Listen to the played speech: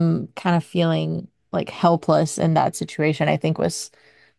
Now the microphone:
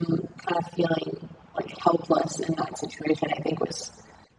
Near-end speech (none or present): none